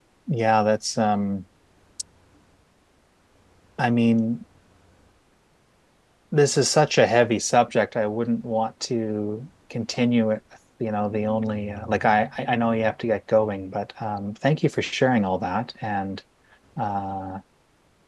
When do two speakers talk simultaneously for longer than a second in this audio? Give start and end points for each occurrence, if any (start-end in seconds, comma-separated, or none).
none